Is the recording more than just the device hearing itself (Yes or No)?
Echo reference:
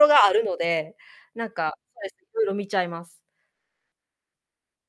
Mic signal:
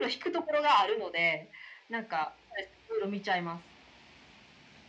No